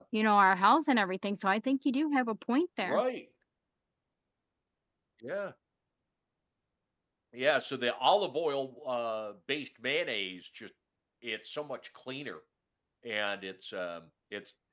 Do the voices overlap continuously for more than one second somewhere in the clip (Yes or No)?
No